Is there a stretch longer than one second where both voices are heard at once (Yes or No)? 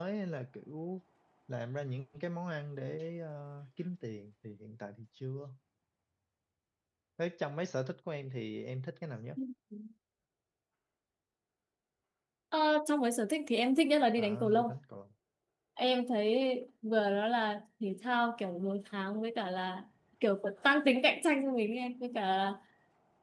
No